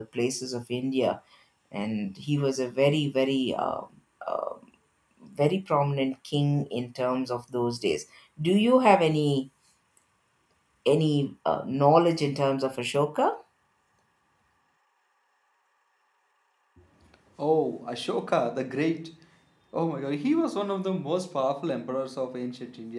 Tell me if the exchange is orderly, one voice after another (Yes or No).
Yes